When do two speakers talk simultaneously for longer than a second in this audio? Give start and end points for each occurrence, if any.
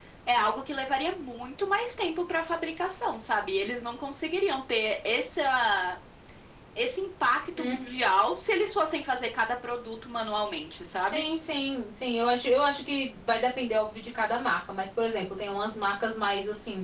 none

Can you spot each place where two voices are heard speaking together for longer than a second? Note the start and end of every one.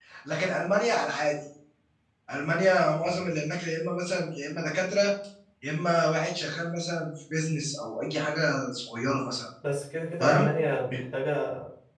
none

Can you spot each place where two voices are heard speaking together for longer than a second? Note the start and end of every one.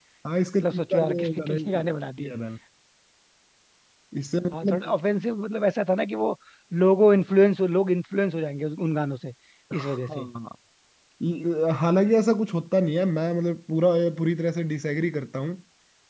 0.6-2.3

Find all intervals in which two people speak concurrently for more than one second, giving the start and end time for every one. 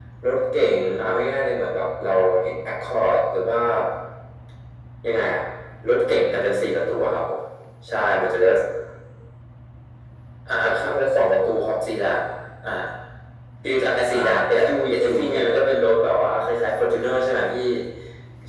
14.1-15.6

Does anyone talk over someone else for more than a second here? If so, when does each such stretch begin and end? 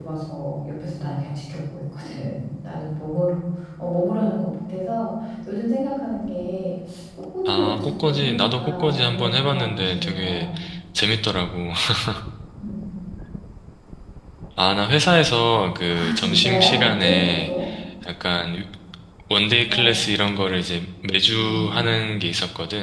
7.5-10.5, 15.9-17.5

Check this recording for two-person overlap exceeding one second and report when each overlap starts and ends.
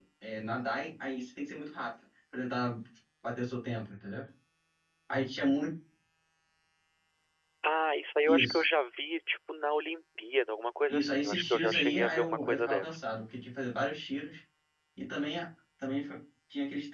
10.9-13.0

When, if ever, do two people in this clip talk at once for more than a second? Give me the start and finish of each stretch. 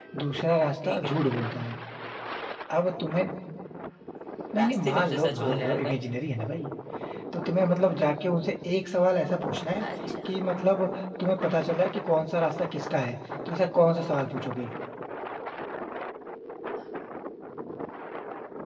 4.6-6.0

